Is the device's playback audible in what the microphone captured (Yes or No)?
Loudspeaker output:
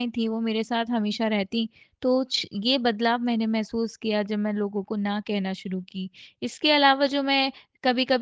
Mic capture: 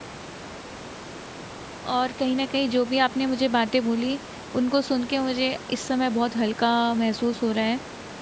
No